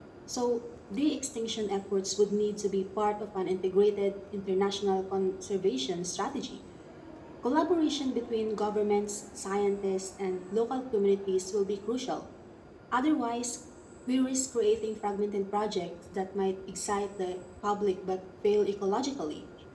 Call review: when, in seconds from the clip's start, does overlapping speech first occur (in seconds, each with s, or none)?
none